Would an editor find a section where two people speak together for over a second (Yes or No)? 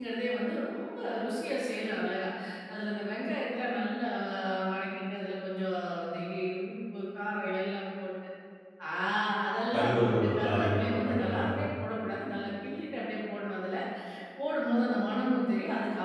Yes